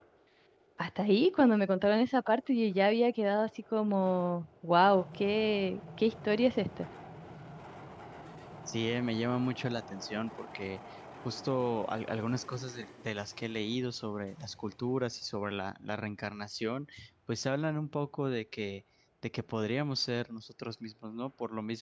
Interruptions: none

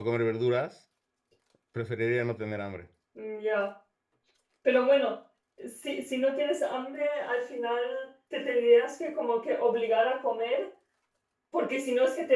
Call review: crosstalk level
none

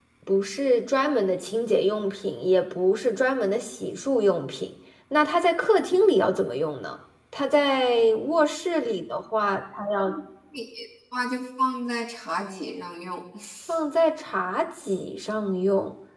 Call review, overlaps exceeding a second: none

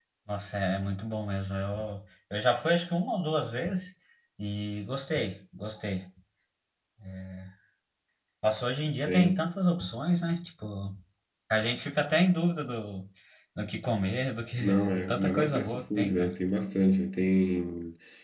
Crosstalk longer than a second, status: present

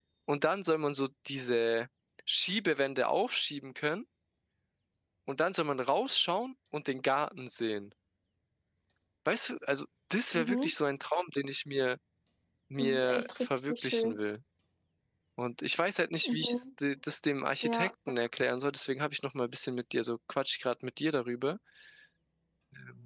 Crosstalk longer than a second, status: present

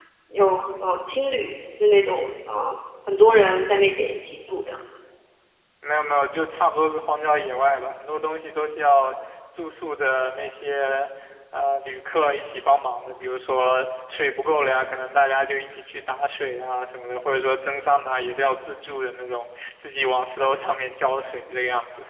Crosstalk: none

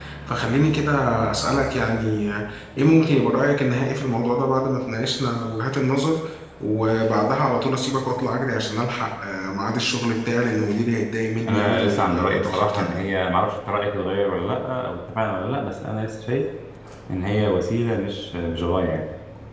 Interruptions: present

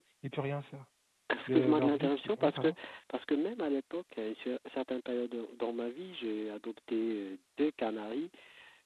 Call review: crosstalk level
present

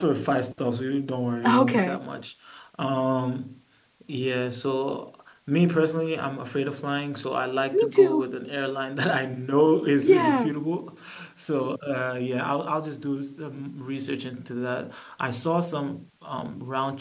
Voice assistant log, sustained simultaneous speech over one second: none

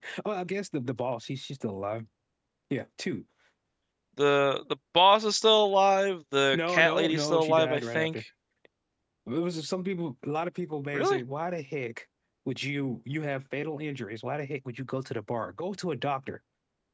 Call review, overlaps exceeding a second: present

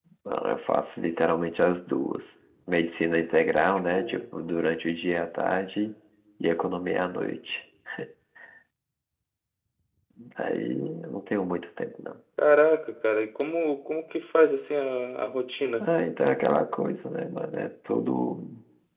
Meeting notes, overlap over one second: none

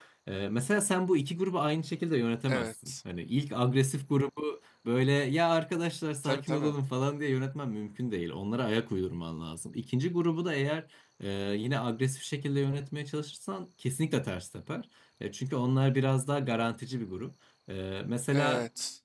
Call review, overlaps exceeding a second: none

